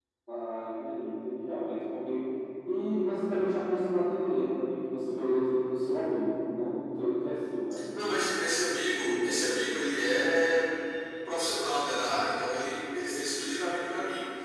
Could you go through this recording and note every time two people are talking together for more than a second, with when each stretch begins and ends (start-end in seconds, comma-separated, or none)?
none